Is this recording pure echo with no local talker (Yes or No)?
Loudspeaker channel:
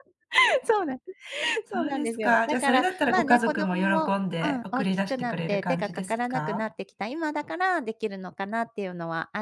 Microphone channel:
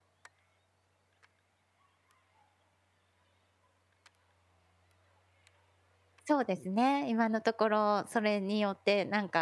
No